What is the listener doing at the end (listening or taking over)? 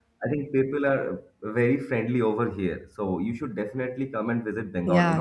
taking over